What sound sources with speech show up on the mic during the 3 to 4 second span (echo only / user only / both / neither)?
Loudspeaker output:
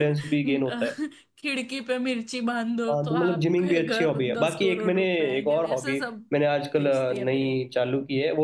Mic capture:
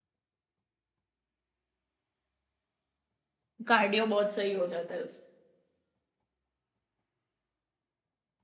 user only